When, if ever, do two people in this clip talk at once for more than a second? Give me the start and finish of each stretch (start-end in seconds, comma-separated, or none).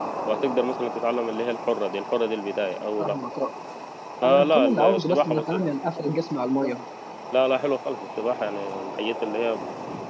4.2-5.6